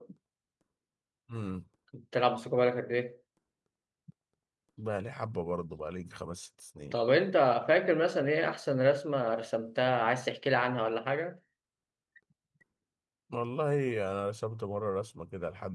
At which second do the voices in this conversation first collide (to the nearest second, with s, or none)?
none